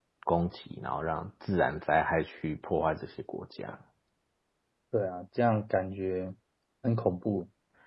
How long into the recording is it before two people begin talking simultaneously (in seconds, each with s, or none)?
none